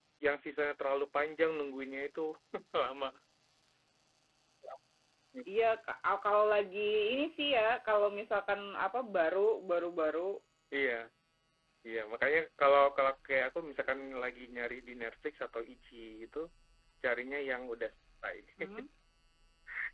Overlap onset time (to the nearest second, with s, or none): none